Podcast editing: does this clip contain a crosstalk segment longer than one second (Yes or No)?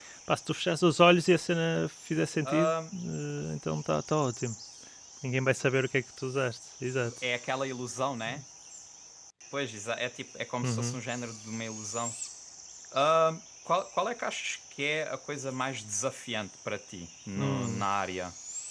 No